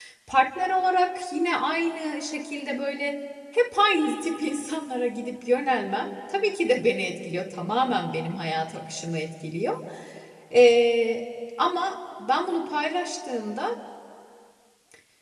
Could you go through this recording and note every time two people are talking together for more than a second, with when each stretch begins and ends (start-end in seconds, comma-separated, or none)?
none